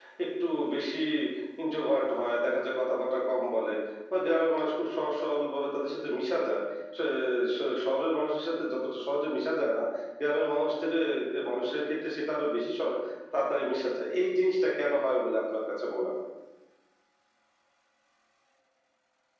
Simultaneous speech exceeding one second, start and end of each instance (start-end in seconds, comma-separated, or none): none